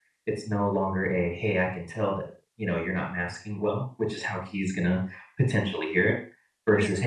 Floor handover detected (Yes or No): No